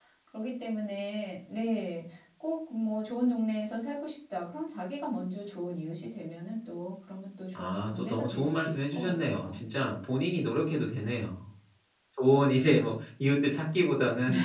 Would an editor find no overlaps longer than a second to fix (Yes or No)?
No